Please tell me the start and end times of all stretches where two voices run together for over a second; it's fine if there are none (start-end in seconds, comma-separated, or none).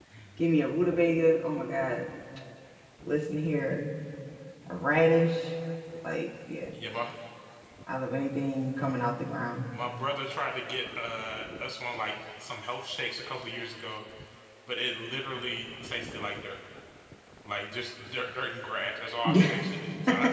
none